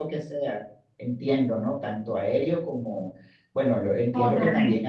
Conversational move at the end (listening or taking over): listening